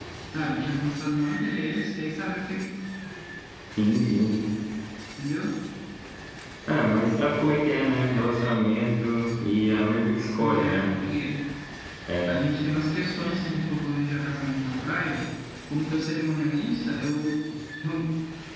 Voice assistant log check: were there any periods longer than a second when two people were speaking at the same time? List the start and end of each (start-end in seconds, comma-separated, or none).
none